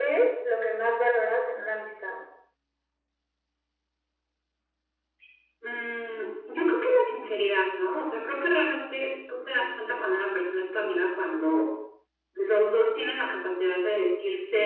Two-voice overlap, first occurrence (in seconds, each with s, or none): none